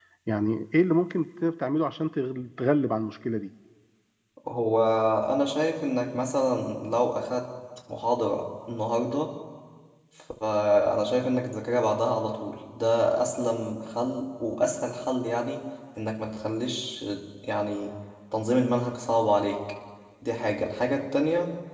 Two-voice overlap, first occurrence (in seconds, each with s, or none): none